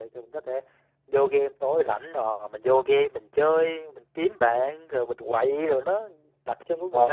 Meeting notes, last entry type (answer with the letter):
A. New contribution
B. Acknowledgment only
A